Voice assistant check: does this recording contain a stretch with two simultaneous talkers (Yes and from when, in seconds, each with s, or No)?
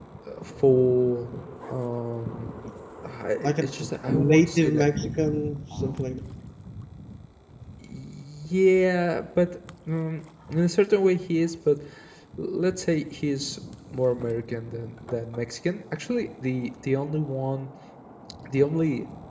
Yes, from 3.4 s